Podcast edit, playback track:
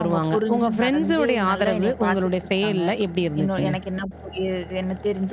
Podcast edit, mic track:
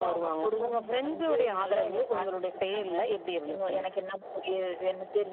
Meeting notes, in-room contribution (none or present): none